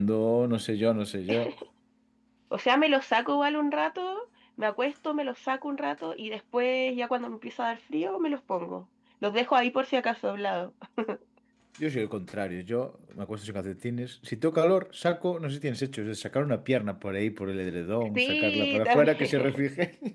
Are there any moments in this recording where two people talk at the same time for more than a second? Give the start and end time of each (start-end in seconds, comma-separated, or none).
18.1-19.6